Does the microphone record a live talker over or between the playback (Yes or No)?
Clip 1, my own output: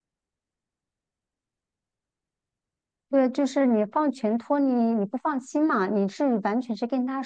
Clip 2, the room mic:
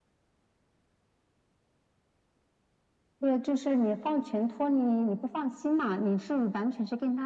No